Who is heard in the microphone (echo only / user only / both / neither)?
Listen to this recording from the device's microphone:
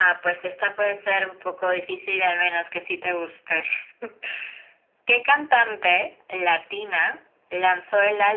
echo only